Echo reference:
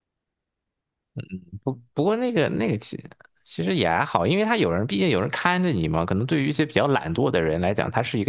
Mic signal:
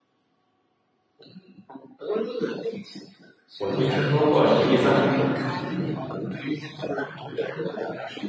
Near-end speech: present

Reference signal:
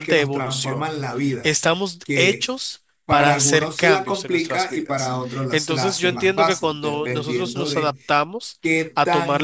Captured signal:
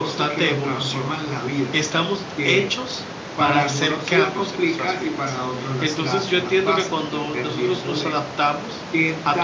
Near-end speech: none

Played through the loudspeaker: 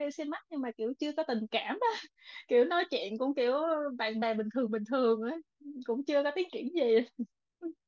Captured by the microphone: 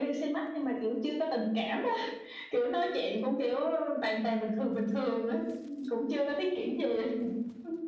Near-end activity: none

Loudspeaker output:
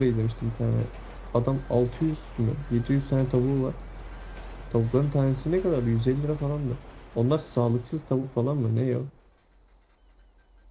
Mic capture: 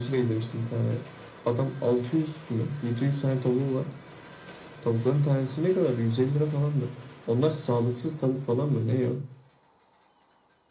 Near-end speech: none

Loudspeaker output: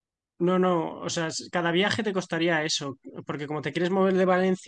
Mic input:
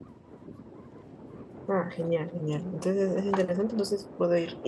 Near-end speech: present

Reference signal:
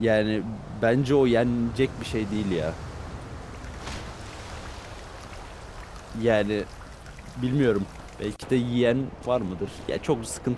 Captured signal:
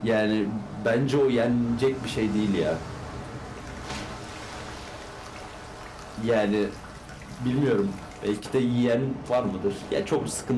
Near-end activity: none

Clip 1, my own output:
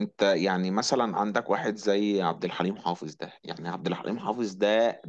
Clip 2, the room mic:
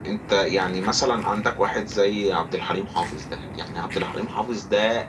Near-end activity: none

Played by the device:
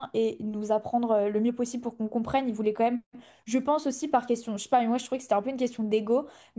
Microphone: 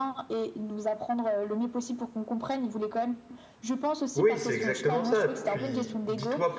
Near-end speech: present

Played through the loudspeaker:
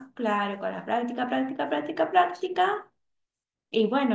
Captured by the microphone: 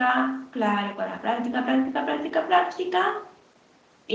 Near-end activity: none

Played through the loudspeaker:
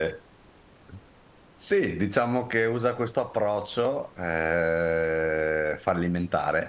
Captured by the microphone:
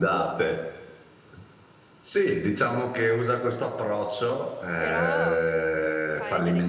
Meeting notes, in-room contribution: present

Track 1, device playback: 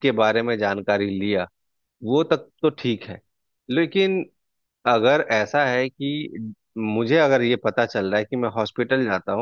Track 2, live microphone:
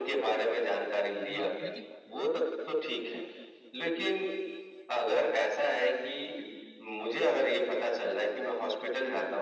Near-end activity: present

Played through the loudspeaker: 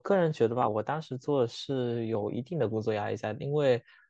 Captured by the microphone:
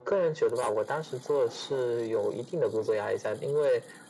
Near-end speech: none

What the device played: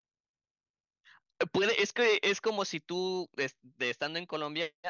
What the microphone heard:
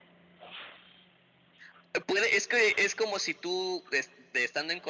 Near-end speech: none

